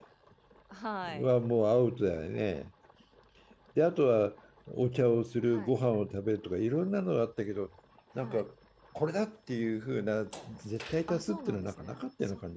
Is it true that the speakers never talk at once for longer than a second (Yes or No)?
No